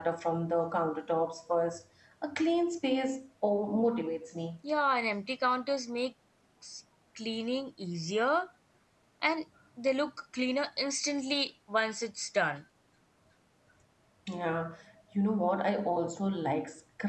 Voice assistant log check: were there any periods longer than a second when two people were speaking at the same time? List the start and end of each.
none

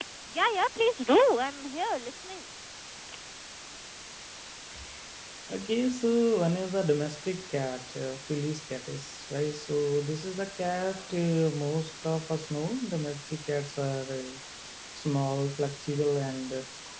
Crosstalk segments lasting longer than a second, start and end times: none

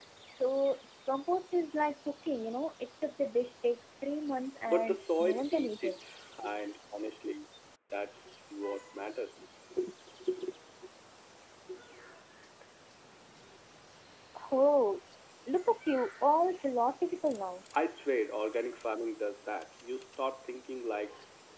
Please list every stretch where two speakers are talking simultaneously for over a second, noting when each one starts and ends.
4.7-6.0

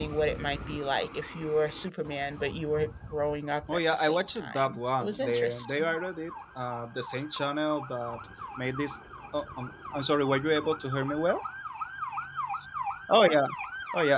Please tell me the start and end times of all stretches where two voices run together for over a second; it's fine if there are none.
3.7-5.9

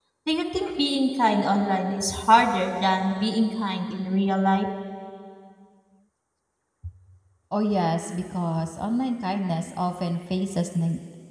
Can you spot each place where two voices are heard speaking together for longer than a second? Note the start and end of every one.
none

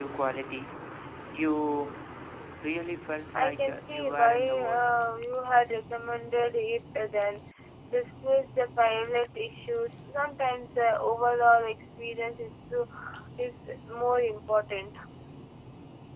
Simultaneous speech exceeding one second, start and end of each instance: 3.3-4.9

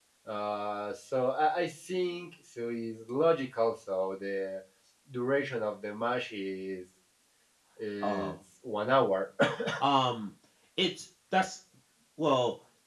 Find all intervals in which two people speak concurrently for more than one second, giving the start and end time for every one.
none

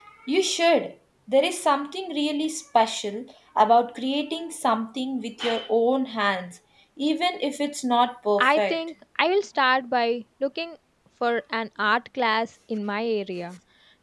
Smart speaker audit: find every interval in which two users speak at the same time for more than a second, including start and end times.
none

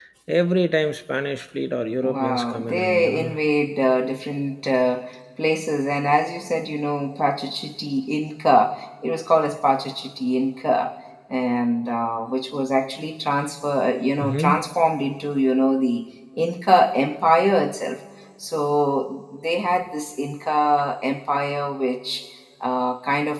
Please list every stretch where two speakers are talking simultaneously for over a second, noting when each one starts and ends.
1.9-3.3

